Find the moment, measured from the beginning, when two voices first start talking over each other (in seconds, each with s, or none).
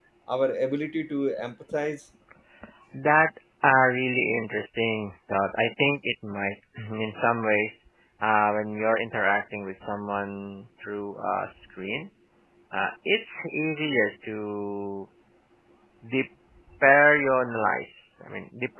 none